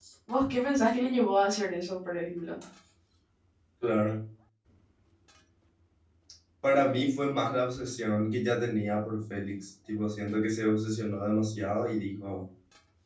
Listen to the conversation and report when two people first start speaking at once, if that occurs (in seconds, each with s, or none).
none